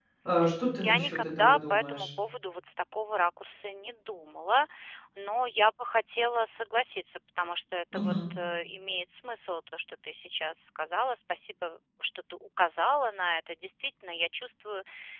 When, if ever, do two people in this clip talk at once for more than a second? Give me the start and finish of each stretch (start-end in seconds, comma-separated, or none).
0.8-2.1